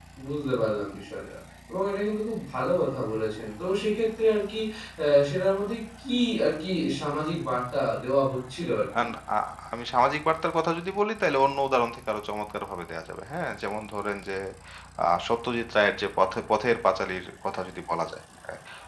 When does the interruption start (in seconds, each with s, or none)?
none